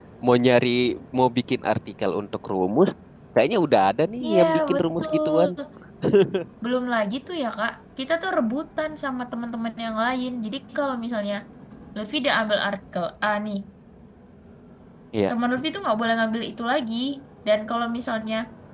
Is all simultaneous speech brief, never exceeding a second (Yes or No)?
No